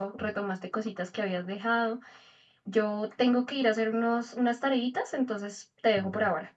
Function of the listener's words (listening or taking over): taking over